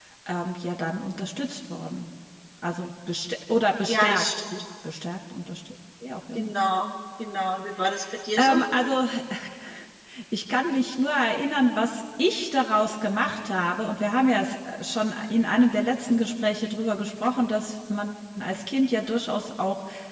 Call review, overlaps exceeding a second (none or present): none